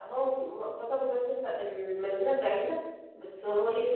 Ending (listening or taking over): taking over